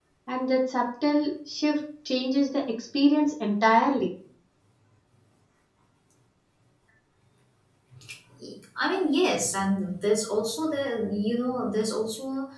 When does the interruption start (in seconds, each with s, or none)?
none